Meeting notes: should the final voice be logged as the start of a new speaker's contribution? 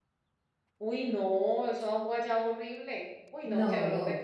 No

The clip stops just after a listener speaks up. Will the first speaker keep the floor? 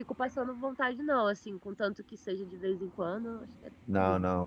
No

